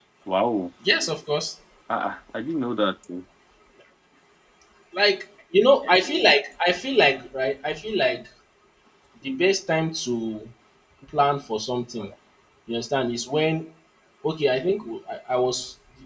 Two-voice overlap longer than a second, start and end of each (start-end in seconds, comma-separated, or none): none